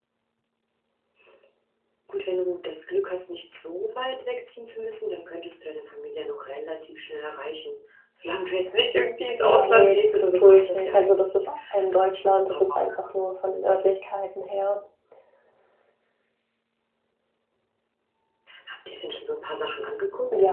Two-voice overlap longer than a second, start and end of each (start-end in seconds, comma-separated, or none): 9.4-11.4